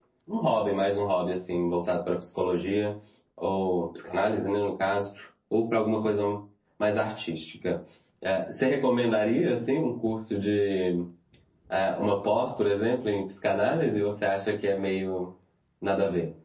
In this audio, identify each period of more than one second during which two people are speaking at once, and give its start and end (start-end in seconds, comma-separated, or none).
none